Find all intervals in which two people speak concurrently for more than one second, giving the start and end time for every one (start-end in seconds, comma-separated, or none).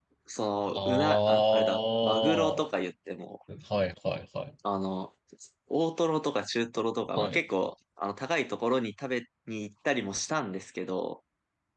0.7-2.7